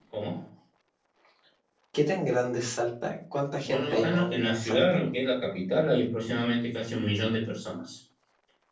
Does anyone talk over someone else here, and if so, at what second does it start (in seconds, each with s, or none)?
3.6 s